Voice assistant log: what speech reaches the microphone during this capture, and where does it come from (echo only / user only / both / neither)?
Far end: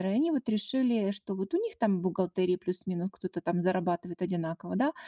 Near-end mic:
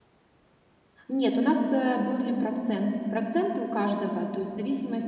user only